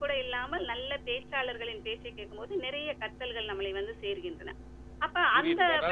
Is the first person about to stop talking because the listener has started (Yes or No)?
Yes